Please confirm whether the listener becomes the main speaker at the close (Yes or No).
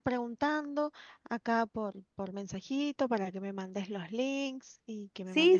Yes